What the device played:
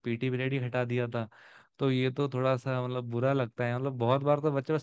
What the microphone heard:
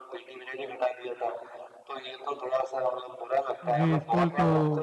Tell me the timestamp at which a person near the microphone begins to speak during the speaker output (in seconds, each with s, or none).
3.7 s